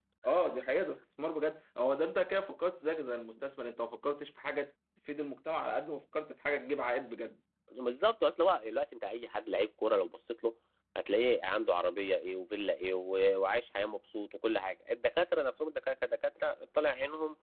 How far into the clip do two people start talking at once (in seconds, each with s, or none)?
none